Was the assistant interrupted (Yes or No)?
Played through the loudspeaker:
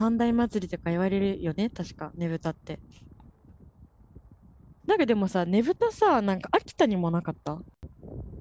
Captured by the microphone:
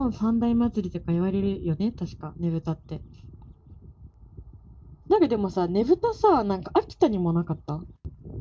No